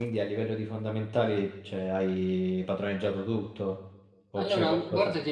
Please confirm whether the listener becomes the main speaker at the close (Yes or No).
Yes